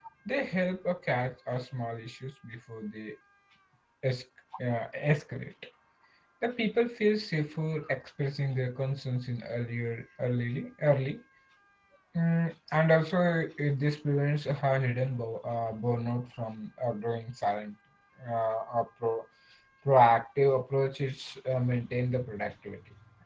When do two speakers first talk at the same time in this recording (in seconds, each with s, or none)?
none